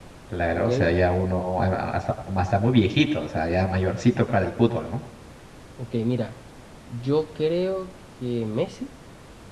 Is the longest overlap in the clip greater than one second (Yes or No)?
No